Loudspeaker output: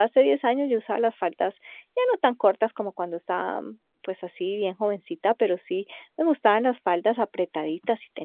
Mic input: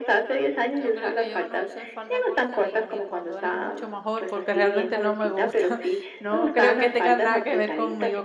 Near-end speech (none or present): present